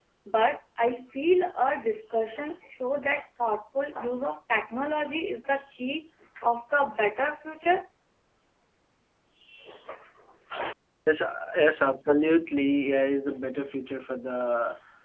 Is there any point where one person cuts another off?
No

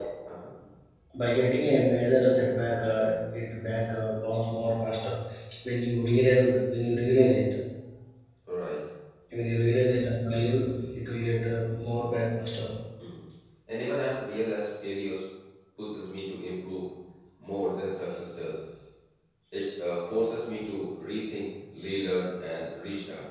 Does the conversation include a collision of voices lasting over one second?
No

